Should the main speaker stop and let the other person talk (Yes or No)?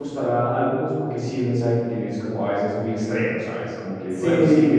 Yes